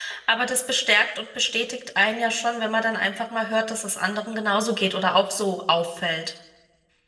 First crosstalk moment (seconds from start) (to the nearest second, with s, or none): none